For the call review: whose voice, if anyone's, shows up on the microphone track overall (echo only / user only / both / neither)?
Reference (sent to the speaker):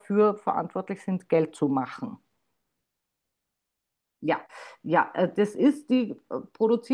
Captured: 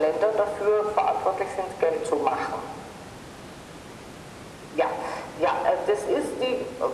echo only